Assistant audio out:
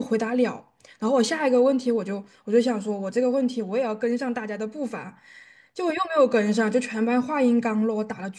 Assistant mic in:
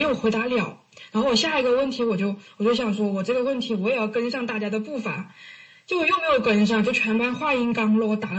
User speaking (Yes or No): No